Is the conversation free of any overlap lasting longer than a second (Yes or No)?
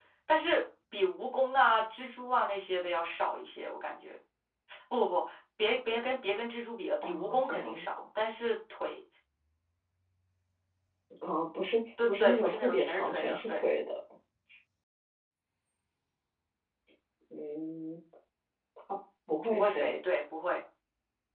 No